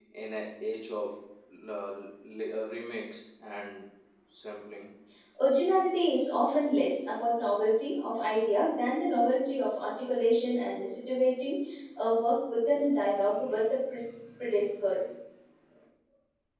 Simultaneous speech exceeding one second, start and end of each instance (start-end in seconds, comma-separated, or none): none